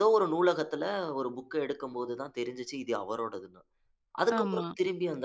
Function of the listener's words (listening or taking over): listening